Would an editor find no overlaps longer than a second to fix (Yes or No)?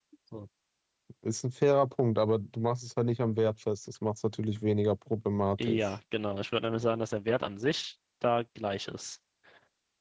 Yes